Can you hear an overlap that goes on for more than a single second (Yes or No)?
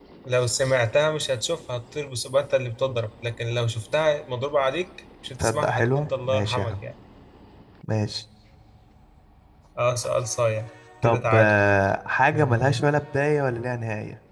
Yes